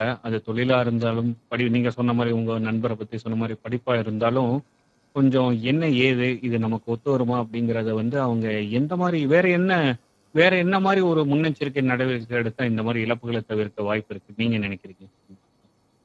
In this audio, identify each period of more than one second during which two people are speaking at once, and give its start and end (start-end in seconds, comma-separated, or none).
none